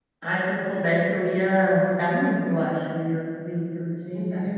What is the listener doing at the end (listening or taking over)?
taking over